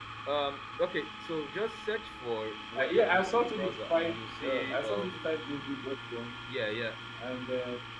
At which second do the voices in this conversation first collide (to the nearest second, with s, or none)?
3 s